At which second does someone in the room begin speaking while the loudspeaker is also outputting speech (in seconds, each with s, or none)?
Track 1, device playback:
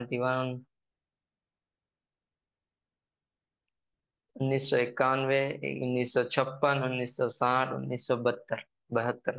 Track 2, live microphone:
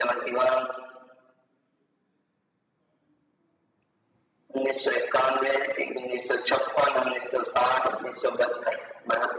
none